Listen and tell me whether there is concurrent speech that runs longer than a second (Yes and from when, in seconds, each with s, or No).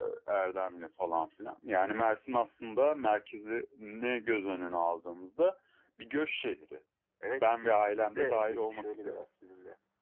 Yes, from 7.4 s